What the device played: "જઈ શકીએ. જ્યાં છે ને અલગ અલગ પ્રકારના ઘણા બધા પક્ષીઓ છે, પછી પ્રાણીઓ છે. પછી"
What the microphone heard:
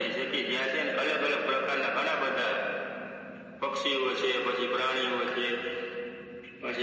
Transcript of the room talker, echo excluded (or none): none